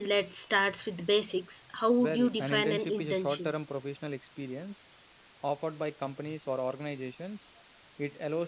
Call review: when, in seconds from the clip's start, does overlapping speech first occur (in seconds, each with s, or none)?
2.0 s